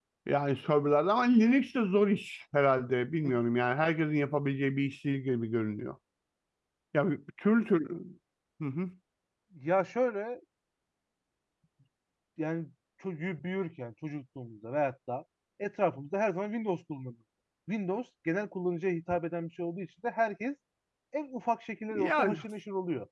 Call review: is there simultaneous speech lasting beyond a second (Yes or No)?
No